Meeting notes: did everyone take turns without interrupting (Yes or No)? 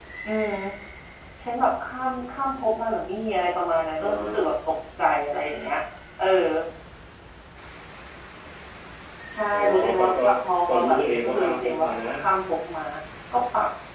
No